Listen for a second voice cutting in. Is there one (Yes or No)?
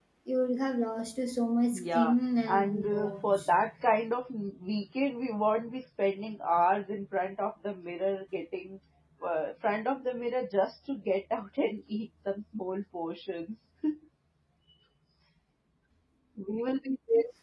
Yes